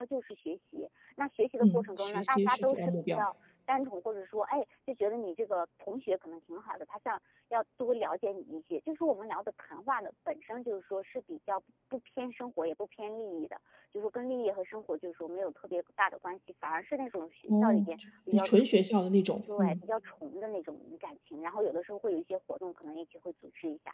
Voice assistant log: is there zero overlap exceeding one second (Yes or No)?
No